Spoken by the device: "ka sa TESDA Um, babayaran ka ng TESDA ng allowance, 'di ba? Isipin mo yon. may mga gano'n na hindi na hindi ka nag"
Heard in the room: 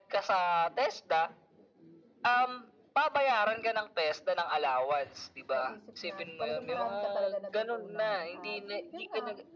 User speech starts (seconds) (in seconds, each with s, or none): 5.5 s